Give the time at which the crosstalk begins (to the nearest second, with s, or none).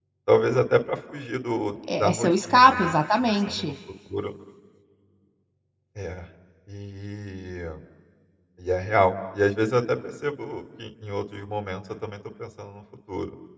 2 s